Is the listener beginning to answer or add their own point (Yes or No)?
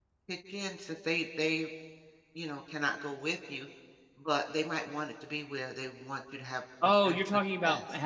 Yes